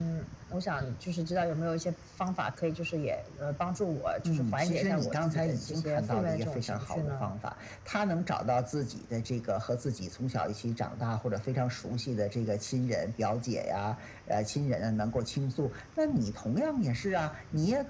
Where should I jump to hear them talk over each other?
4 s

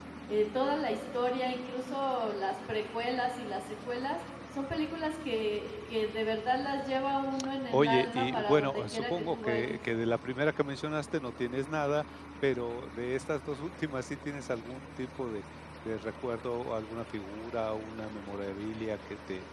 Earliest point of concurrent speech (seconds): 8 s

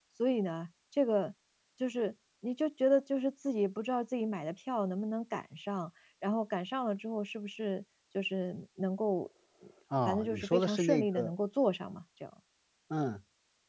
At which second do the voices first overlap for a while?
10 s

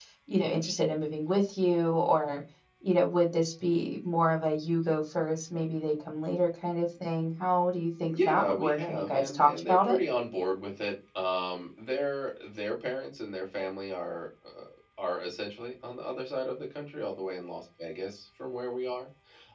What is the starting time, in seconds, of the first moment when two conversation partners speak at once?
8 s

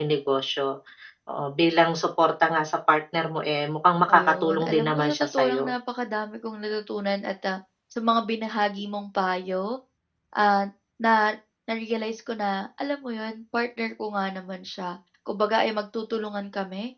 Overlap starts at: 4 s

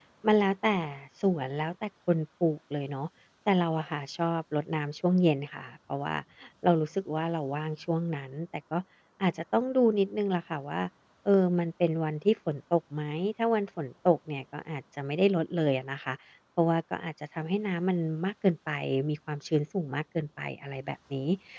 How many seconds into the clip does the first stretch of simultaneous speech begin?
none

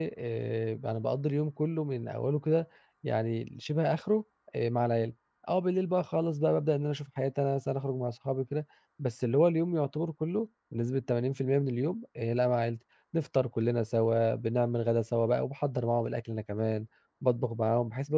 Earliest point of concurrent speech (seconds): none

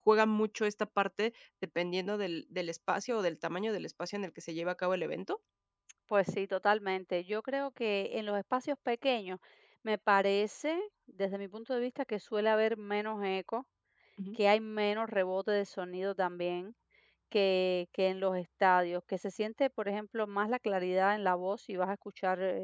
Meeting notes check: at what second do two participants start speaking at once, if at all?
none

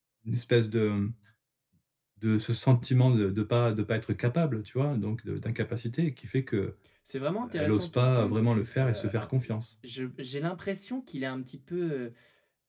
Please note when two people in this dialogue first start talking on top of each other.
8 s

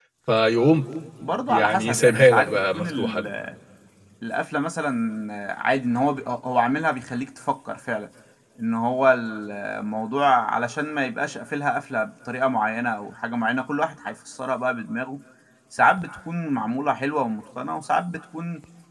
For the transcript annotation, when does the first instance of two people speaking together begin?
1 s

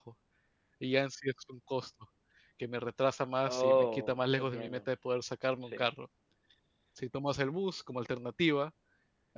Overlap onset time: 3 s

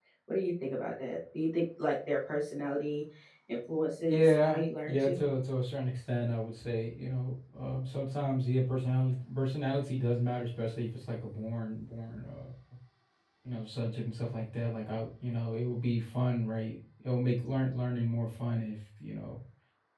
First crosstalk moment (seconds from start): 4 s

